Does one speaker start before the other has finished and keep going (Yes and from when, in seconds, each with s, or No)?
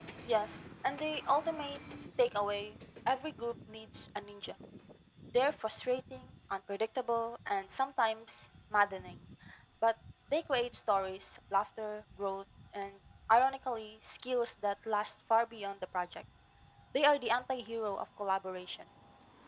No